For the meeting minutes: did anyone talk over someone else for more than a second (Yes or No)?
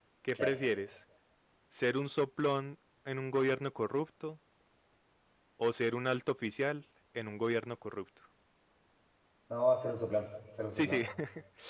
No